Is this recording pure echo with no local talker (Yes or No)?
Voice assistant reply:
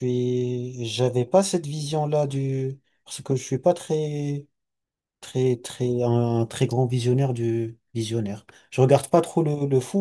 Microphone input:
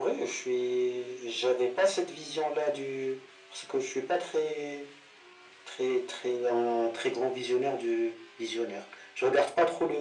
Yes